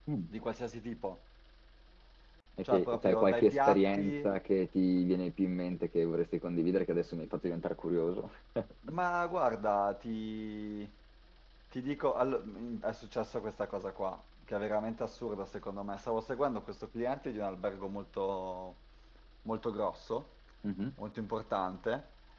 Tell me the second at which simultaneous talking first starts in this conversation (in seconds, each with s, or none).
2.6 s